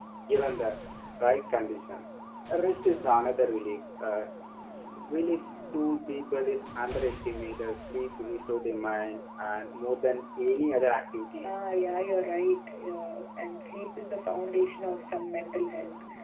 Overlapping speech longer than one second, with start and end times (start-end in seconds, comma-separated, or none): none